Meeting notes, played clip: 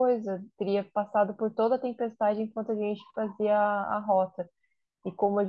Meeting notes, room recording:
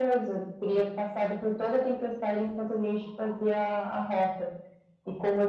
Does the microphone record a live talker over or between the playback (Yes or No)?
No